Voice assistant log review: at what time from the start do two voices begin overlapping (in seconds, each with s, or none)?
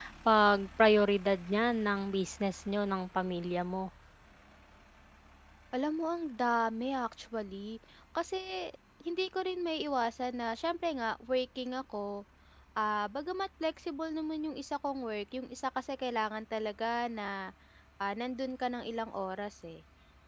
none